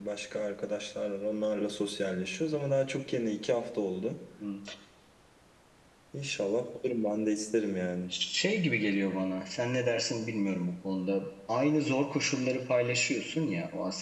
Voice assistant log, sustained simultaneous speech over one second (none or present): none